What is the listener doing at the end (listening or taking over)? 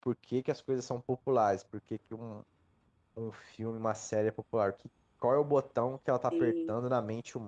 listening